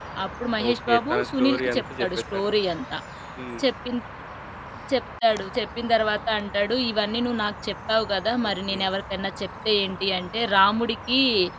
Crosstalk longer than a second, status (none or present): present